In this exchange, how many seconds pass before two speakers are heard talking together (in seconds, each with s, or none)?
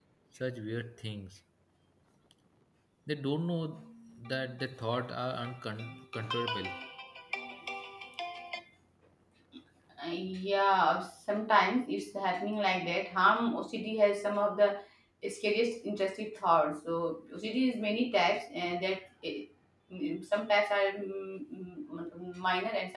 none